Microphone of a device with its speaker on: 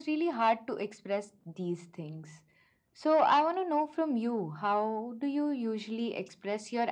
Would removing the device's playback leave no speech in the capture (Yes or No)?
Yes